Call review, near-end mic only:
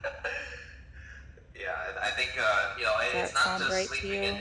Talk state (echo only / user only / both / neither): both